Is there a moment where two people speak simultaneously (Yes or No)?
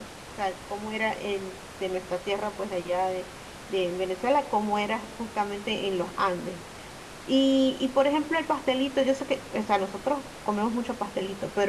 No